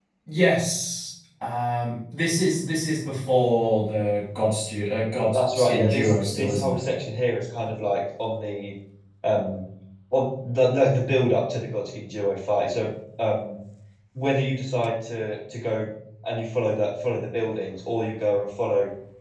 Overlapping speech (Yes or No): Yes